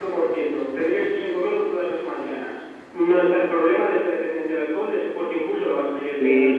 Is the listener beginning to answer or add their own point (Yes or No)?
Yes